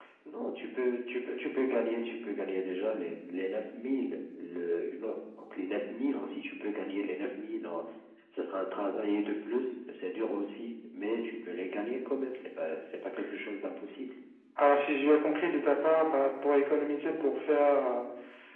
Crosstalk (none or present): none